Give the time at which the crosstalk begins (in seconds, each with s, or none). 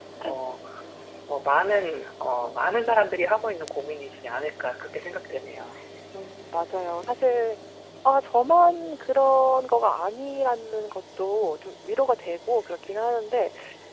none